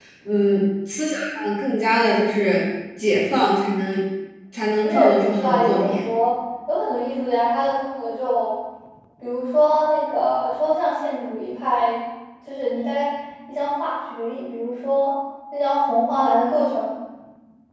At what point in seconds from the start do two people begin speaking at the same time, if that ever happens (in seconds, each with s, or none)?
4.8 s